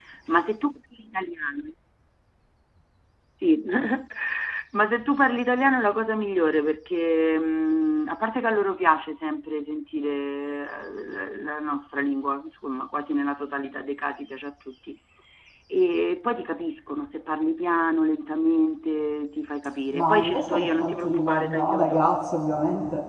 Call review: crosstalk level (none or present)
present